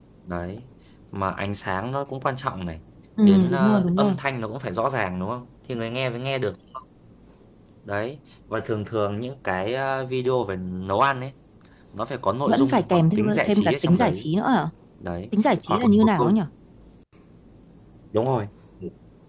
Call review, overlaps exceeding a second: present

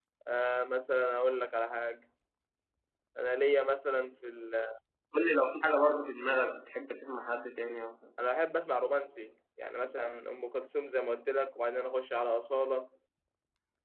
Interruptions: none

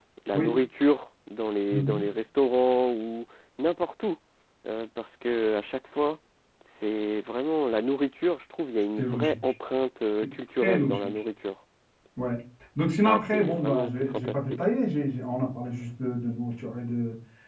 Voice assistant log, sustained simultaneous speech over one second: present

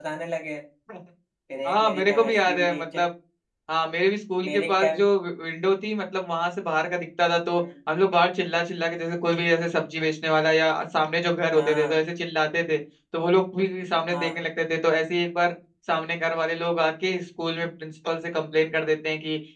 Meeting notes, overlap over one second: present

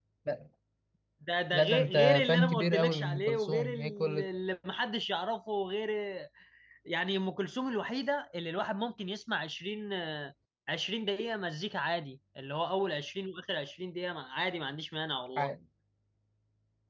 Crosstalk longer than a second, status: present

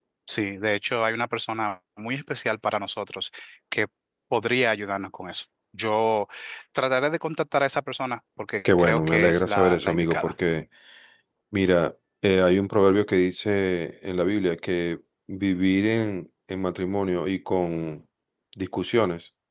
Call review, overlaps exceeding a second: present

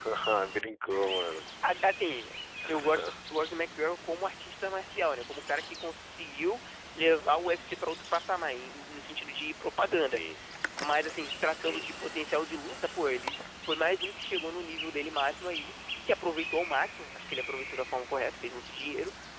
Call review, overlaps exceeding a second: none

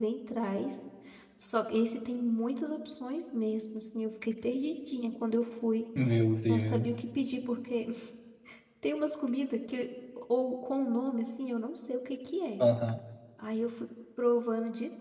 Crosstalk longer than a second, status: none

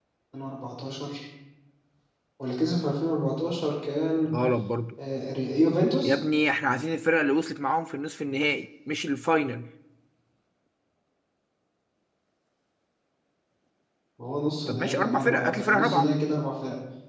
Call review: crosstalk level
present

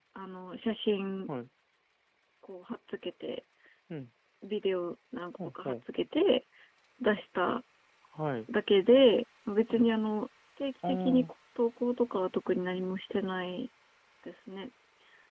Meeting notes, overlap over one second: none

